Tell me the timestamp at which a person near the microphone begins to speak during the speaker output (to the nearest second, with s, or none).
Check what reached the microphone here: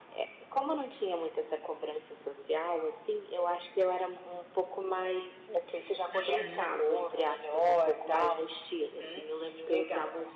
6 s